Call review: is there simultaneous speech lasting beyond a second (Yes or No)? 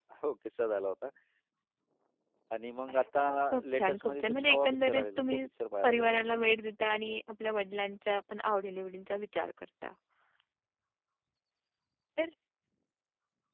Yes